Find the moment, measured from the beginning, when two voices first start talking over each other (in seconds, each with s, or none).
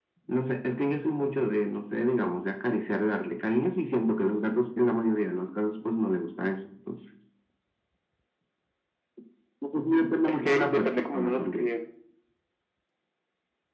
10.2 s